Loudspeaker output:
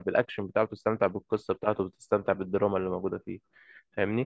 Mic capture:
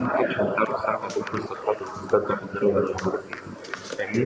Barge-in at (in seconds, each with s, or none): none